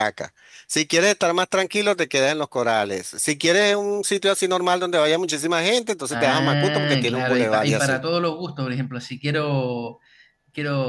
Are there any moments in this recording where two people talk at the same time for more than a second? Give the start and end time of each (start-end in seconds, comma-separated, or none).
6.1-8.0